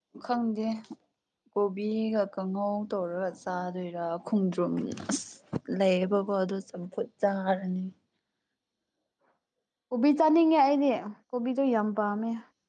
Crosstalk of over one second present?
No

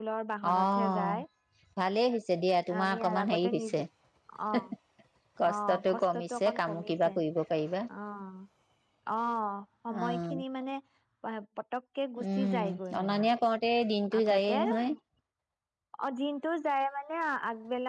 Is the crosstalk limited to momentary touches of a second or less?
No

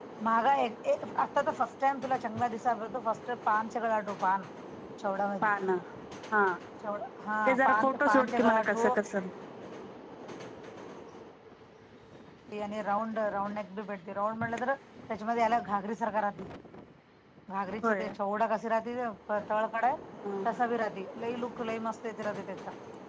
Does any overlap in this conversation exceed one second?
Yes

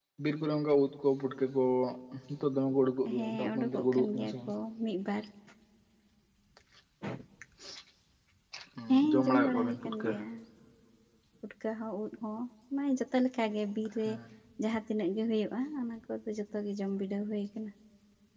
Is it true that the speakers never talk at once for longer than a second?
No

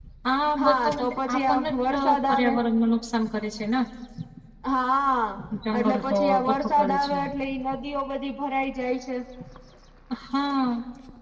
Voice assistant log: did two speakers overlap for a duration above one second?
Yes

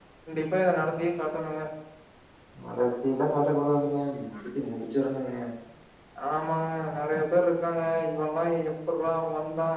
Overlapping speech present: No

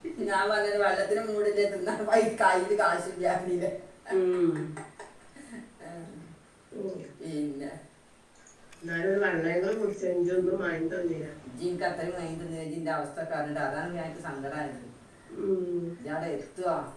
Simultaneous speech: No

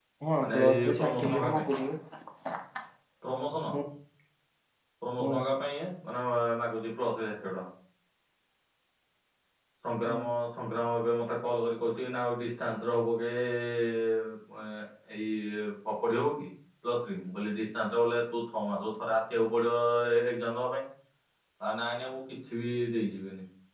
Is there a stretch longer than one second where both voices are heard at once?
Yes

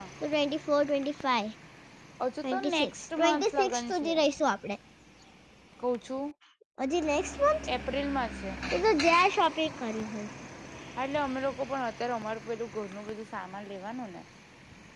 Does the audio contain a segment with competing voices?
Yes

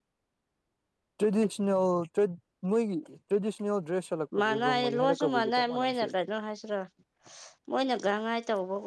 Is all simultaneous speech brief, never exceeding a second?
No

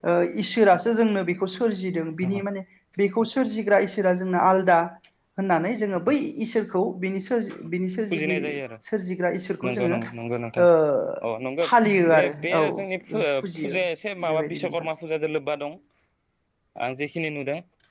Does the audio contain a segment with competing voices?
Yes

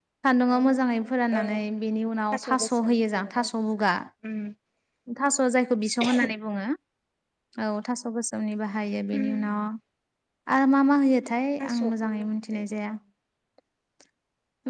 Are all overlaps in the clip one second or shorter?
No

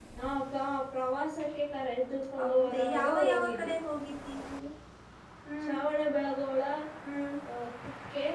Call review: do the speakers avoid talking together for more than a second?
No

